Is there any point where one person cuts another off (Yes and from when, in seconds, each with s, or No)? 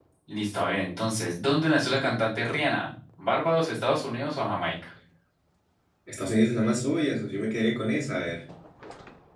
No